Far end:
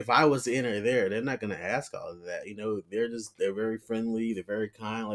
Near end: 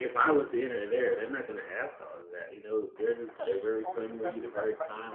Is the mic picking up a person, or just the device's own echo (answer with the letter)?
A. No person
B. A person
B